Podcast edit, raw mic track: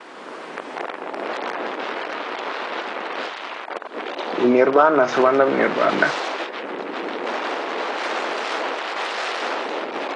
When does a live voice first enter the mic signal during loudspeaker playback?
4.4 s

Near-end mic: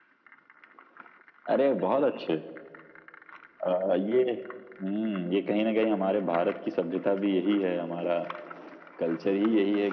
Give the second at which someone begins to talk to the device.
none

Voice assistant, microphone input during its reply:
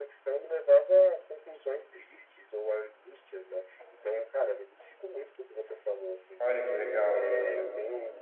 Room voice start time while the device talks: 6.4 s

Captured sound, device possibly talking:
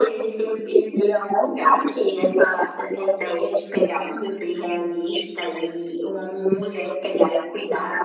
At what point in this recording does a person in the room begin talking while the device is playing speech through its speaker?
none

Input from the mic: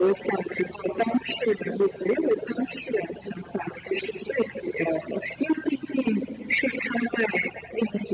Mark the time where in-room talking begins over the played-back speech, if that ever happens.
none

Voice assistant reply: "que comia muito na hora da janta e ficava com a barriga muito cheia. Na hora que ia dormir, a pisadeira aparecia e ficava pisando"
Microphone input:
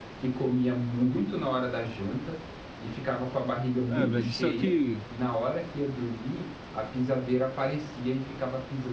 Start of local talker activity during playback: 3.9 s

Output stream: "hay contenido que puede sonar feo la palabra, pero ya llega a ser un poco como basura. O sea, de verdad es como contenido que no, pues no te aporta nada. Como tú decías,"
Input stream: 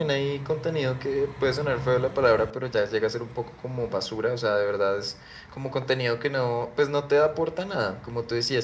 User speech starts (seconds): none

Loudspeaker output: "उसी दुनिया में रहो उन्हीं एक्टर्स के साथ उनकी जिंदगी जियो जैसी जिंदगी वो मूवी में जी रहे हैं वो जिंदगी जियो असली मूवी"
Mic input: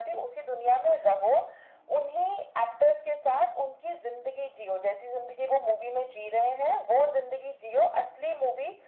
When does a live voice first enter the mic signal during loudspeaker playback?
none

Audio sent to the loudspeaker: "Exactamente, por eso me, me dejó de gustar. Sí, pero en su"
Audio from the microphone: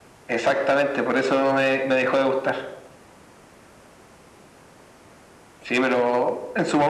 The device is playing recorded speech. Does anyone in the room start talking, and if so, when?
none

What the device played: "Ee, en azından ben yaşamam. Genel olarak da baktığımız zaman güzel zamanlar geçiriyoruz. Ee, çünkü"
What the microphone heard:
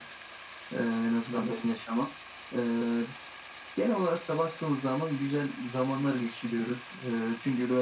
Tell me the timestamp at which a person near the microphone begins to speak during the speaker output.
none

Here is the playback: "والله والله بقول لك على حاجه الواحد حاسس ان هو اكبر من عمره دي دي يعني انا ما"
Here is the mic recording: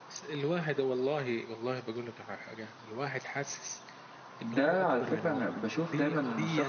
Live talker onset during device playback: 4.4 s

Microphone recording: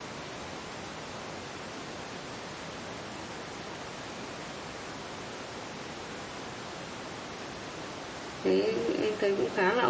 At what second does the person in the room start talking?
8.4 s

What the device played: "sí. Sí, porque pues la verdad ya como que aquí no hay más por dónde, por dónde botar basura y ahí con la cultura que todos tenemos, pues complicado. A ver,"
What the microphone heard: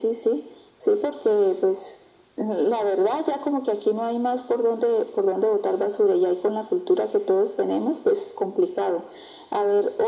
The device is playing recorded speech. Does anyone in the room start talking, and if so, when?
none

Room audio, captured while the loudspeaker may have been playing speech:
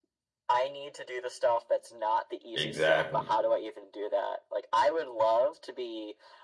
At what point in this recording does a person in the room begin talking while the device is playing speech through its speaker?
2.5 s

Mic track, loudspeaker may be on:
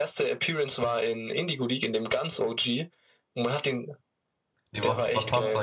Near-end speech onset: 4.7 s

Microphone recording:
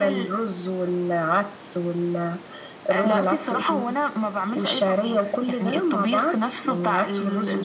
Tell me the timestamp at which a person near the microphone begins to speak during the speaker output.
3.0 s

